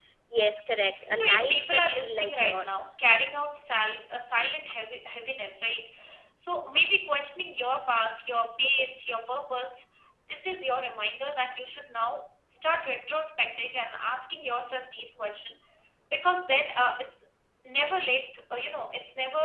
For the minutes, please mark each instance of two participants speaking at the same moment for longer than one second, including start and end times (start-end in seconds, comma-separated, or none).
1.1-3.0